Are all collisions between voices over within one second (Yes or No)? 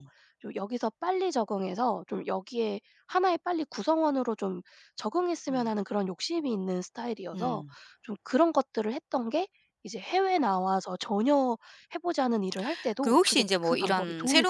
No